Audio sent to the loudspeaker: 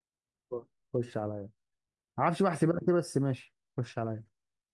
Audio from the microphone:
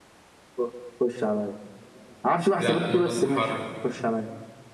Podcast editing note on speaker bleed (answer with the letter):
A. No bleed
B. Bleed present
B